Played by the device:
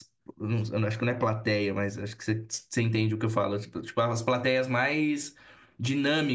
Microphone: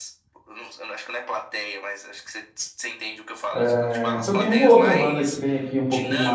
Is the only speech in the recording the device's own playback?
No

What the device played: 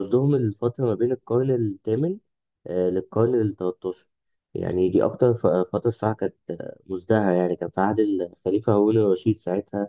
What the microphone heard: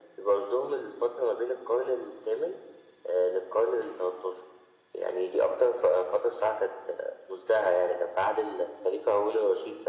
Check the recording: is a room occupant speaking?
No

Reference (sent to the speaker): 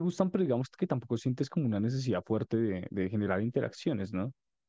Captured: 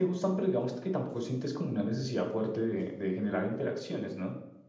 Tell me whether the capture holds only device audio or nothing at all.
Yes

